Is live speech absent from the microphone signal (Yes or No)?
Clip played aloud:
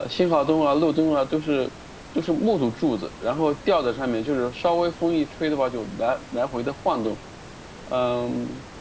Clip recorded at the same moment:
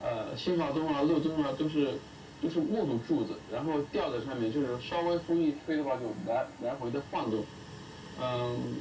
Yes